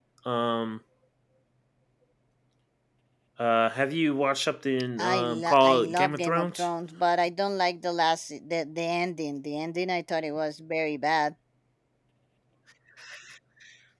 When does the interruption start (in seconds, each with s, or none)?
5.0 s